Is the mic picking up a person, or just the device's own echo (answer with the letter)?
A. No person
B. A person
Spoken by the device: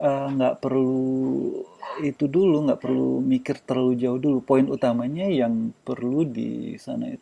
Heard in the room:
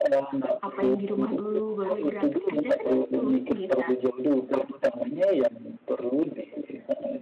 B